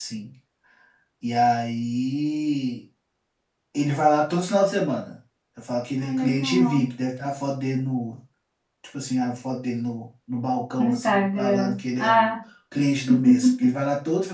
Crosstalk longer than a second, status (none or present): present